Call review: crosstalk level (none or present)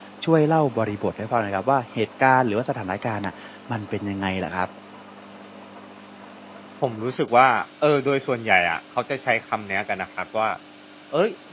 none